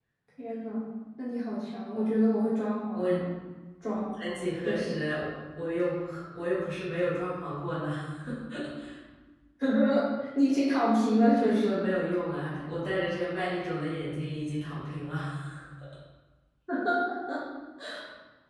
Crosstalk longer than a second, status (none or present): none